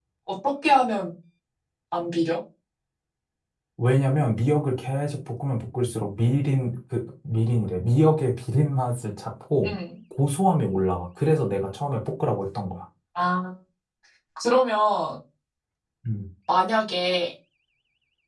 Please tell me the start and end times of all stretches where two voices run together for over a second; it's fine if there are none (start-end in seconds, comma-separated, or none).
none